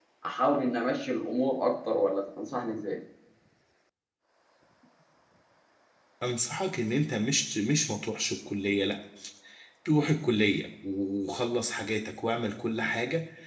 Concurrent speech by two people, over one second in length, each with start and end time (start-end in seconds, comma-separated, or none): none